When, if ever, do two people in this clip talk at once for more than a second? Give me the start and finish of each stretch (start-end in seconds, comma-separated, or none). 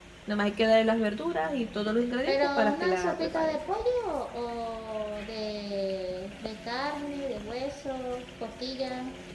2.3-3.6